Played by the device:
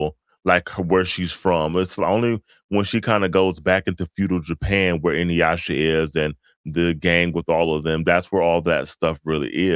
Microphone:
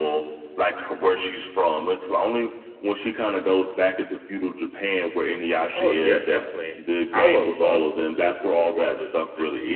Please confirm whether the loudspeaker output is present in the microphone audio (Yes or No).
Yes